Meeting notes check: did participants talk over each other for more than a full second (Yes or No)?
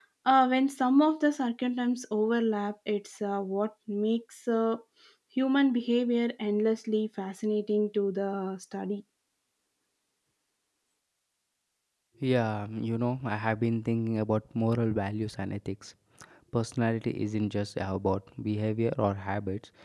No